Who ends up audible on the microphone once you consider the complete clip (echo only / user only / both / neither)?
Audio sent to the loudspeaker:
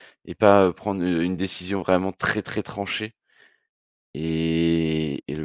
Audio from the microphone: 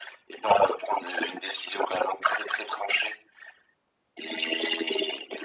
echo only